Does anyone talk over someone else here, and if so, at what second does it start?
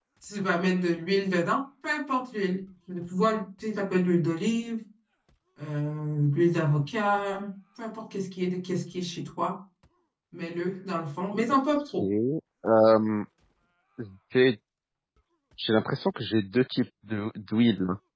none

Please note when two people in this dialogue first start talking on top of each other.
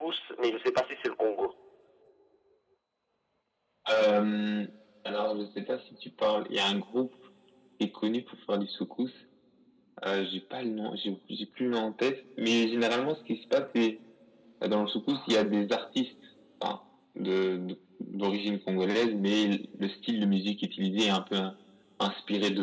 none

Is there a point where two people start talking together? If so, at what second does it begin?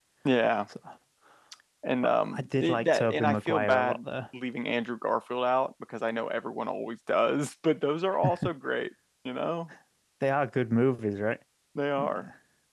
2.0 s

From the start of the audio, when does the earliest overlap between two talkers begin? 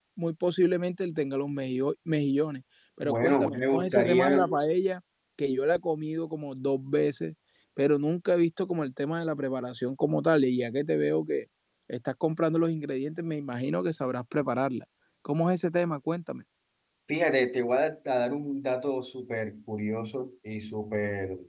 3.0 s

